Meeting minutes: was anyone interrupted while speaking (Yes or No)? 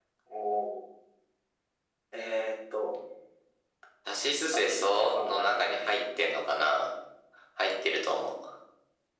Yes